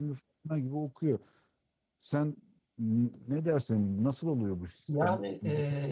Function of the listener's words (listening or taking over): taking over